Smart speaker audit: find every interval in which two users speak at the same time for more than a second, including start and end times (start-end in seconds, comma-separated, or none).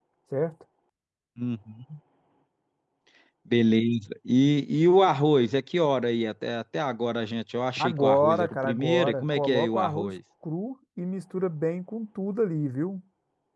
7.8-10.1